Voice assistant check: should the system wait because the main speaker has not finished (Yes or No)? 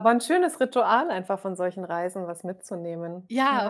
No